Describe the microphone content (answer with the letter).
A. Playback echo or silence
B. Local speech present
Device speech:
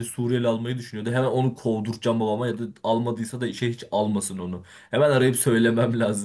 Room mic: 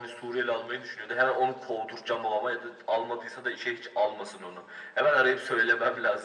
A